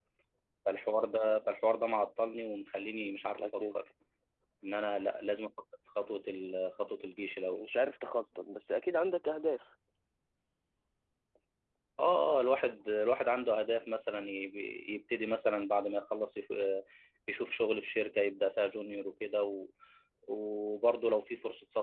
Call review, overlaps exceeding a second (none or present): none